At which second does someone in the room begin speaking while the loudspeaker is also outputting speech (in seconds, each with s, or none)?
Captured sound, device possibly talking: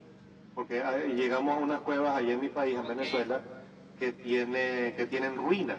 2.8 s